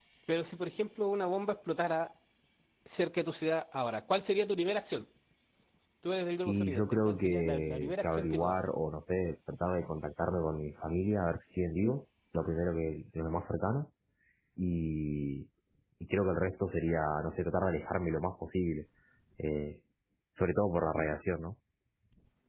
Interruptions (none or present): present